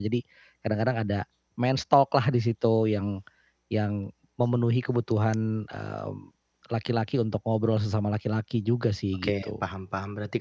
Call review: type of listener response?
taking over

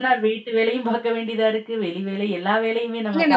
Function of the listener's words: taking over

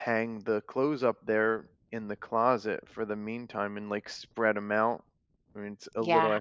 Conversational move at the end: taking over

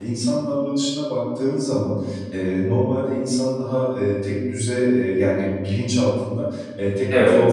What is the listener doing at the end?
listening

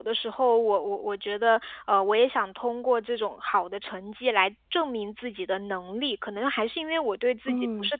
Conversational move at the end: listening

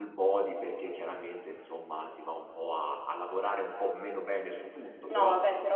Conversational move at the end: taking over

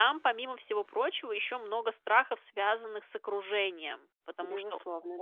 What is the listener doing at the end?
listening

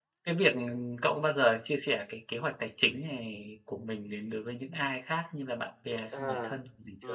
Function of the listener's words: taking over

